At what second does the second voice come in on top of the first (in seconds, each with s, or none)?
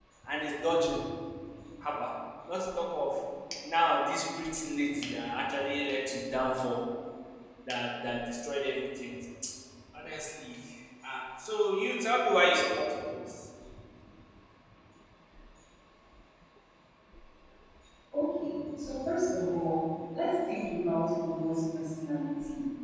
none